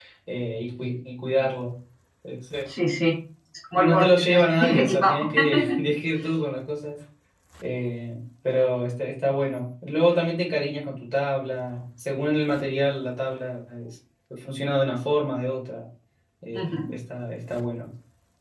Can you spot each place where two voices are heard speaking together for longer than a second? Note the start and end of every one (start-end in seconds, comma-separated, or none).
3.7-5.1